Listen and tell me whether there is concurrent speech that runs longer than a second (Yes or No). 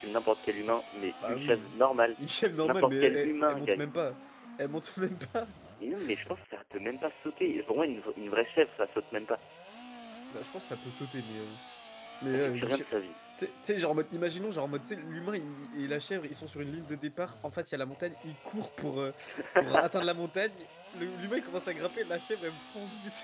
Yes